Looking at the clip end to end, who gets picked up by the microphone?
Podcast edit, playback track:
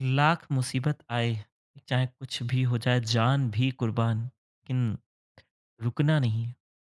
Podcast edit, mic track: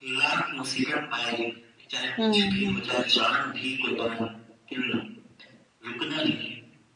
both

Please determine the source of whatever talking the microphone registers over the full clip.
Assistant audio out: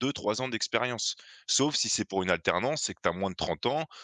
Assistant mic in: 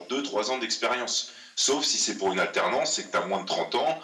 echo only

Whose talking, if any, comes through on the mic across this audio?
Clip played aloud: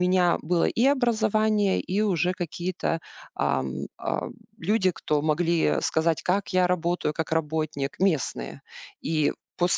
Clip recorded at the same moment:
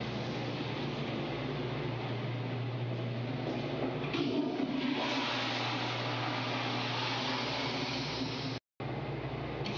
neither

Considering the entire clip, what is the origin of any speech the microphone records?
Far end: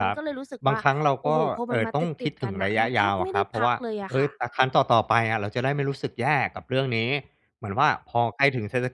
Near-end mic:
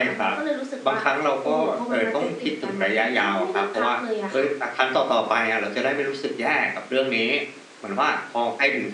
echo only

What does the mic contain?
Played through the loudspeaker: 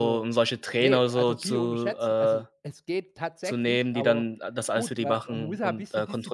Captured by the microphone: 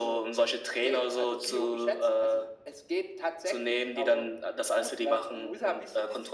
echo only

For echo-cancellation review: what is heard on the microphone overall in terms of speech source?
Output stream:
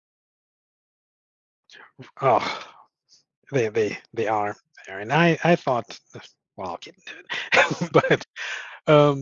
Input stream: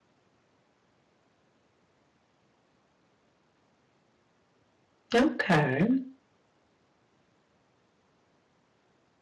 user only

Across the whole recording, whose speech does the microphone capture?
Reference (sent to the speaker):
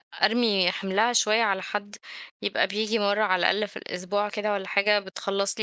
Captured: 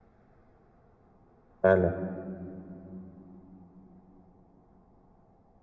user only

